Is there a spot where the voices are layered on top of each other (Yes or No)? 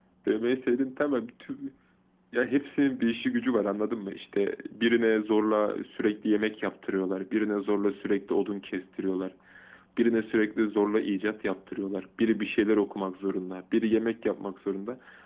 No